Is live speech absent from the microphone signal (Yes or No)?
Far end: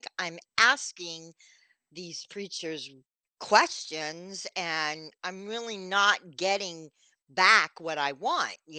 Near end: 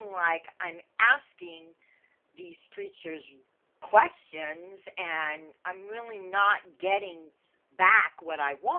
Yes